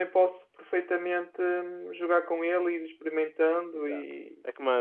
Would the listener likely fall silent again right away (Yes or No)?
No